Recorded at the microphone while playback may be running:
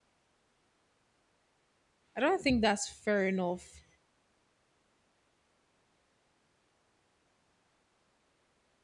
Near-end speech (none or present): present